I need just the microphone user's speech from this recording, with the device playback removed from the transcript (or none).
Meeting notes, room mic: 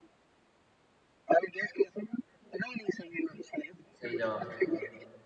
सही जवाब